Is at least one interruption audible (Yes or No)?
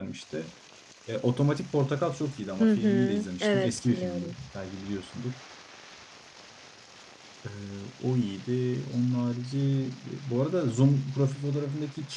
Yes